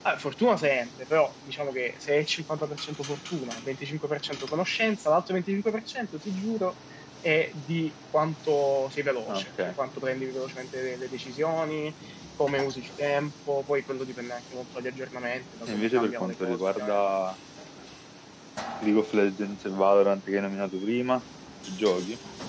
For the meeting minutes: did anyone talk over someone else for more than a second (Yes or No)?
Yes